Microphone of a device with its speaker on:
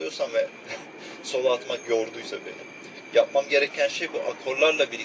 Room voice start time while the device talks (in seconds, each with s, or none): none